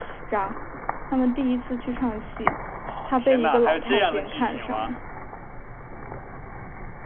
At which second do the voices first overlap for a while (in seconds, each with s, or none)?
3.1 s